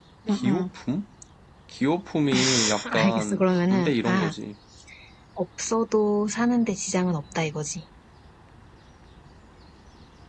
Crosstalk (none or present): present